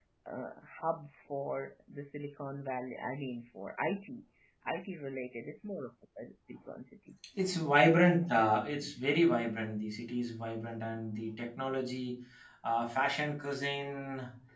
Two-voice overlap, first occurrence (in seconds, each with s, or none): none